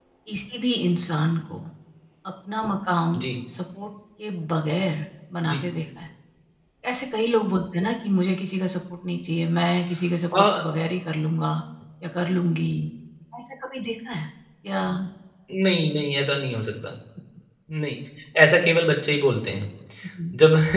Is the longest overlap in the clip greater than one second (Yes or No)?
No